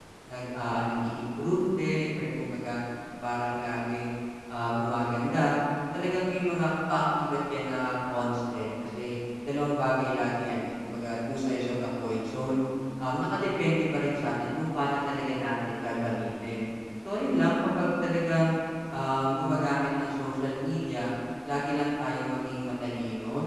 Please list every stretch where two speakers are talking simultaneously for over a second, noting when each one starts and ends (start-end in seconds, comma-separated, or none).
none